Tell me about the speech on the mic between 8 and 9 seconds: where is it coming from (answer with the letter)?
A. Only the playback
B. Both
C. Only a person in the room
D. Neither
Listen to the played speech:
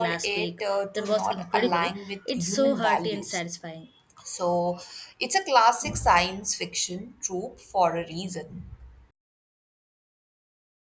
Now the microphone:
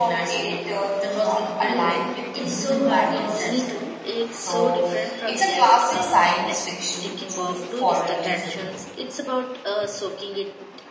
B